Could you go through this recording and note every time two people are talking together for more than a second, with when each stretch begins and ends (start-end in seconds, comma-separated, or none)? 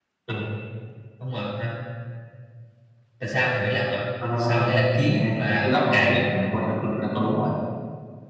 4.4-6.2